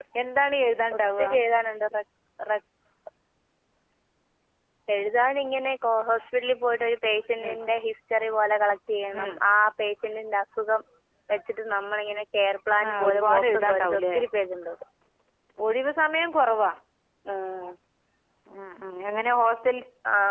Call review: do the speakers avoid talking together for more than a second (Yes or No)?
No